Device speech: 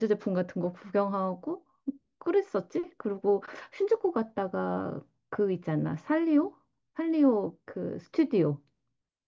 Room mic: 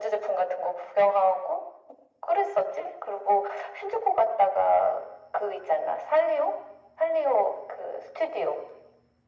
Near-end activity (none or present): none